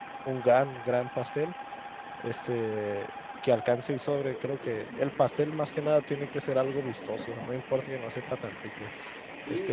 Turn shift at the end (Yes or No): Yes